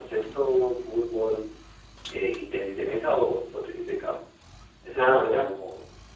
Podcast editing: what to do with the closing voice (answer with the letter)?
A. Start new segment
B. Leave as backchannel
B